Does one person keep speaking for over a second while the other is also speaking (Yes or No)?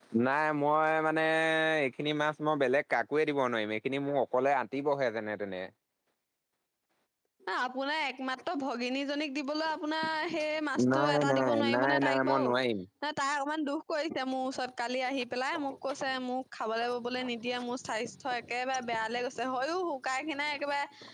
Yes